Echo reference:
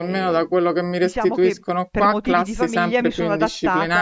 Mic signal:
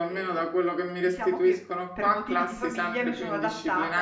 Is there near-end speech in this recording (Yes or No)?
No